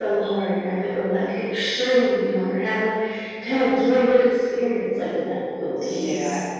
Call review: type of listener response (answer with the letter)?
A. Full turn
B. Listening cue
A